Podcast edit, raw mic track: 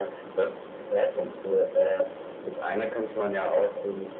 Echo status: present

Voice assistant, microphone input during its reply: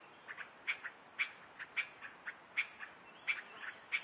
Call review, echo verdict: none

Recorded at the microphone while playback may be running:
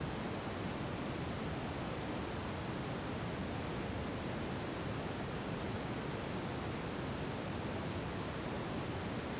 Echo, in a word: none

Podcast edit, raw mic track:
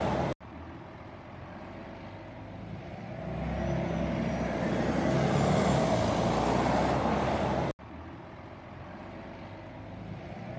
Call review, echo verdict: none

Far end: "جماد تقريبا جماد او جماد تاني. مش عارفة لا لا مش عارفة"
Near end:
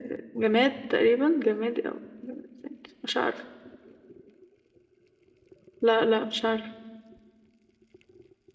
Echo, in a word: present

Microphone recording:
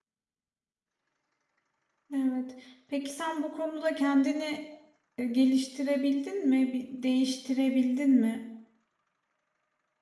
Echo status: none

